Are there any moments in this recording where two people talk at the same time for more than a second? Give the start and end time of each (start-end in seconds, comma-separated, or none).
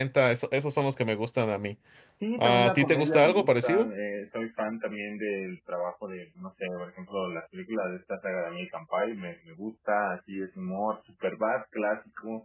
2.4-3.9